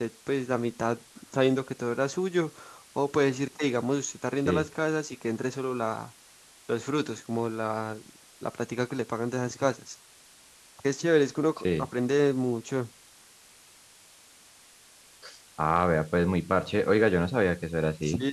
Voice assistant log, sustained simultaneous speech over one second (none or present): none